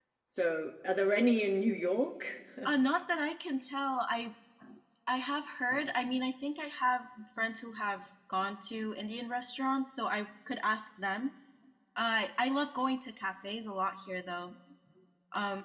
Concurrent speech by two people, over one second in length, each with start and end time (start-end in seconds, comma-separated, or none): none